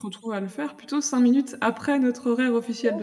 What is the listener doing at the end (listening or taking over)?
taking over